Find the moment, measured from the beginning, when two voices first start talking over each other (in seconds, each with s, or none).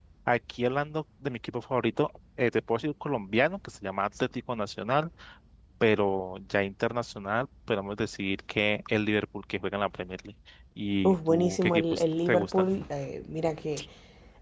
11.0 s